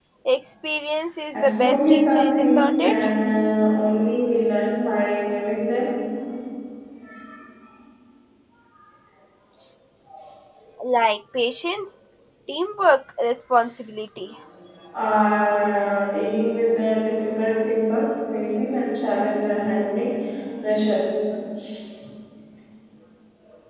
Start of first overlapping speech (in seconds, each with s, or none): 1.3 s